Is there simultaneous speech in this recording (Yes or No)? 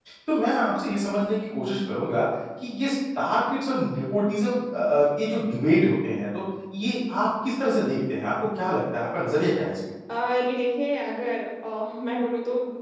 No